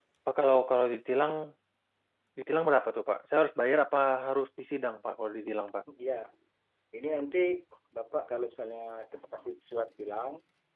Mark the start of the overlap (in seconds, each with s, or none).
none